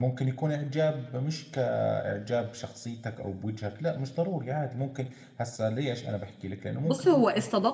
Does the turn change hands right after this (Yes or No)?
Yes